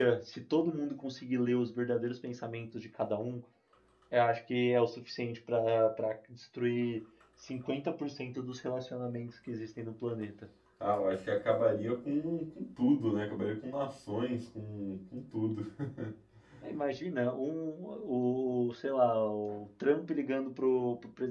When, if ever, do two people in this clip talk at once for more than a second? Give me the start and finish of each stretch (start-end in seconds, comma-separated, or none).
none